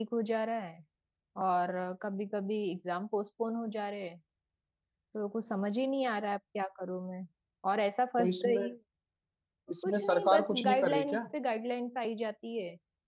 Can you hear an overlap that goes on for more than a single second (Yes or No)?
Yes